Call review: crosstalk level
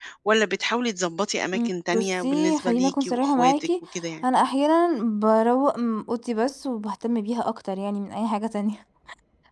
present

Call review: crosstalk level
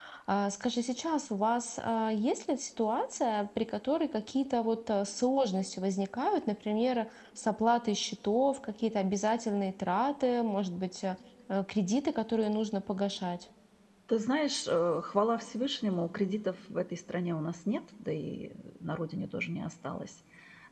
none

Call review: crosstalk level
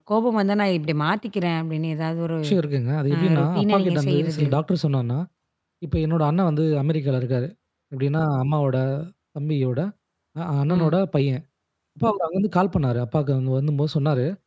present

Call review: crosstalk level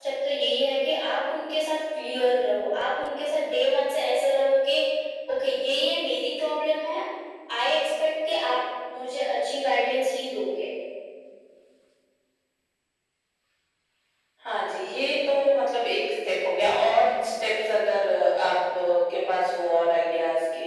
none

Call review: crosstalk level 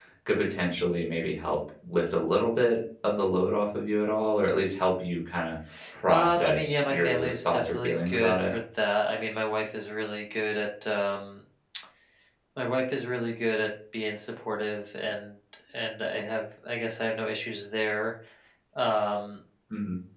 present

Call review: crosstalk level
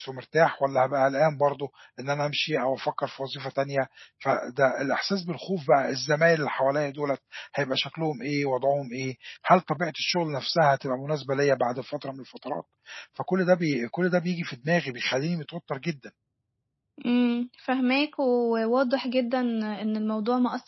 none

